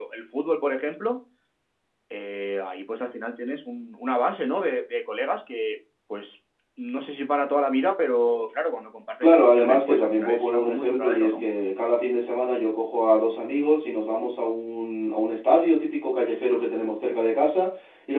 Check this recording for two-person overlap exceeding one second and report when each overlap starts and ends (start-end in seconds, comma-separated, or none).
9.2-11.4